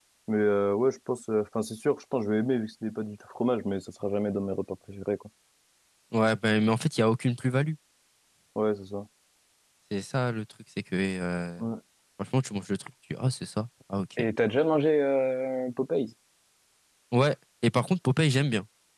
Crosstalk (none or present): none